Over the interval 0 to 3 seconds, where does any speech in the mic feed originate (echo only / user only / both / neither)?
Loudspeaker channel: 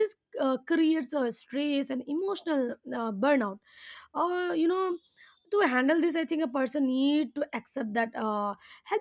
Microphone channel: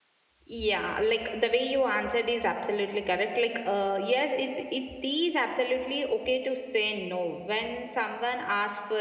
user only